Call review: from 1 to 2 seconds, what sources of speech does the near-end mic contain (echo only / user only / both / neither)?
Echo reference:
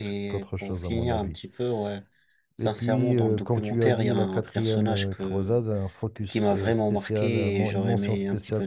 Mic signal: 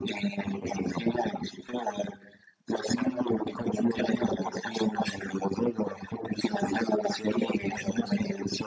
echo only